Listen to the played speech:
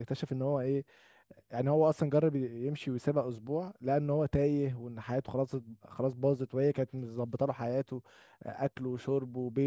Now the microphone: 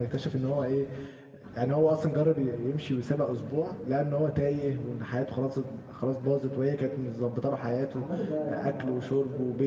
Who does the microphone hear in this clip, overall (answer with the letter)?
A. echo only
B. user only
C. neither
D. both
D